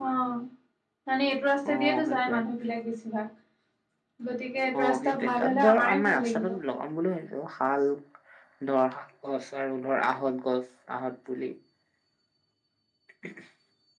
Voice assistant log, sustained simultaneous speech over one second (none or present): present